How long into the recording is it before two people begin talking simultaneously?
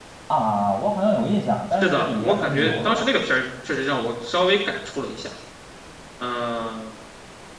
2 s

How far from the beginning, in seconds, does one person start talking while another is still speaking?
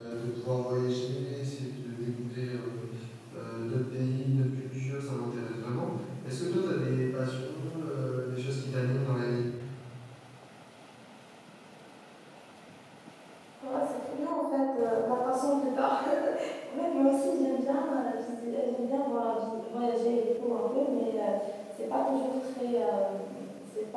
none

